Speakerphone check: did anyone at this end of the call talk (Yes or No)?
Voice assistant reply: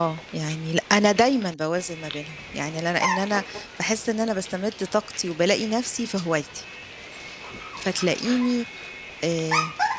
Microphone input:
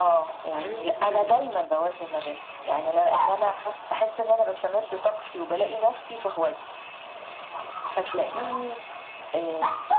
Yes